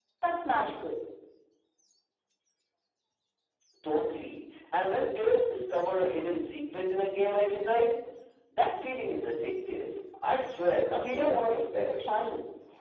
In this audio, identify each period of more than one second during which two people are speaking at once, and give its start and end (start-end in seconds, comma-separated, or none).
10.9-12.3